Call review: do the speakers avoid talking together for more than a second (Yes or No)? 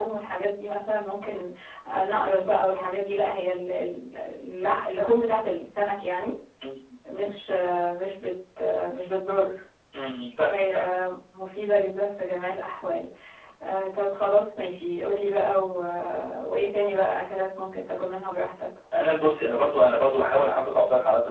Yes